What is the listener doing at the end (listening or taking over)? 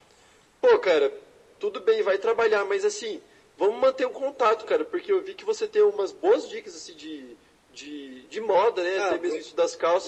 listening